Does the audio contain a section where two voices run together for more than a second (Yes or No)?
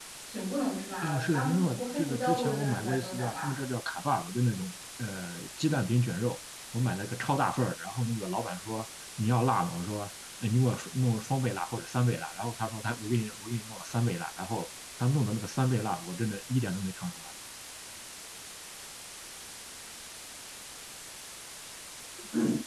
Yes